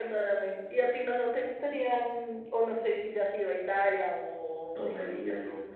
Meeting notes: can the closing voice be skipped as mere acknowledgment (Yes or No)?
No